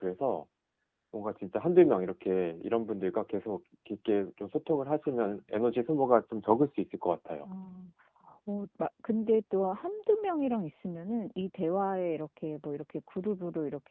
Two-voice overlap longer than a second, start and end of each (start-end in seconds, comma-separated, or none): none